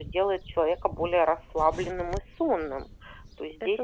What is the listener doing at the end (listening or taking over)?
listening